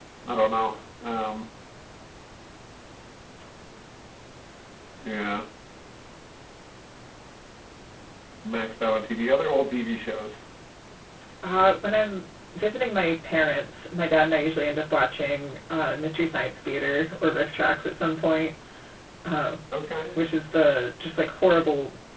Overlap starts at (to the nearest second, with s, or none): none